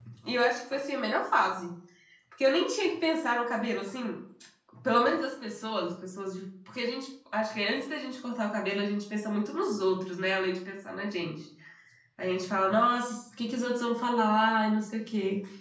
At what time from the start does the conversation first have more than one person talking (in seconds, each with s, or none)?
none